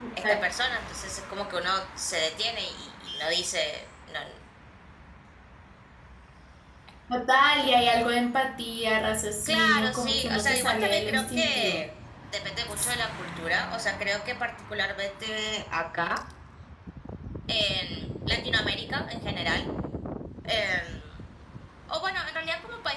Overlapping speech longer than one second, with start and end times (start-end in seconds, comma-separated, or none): 9.5-11.8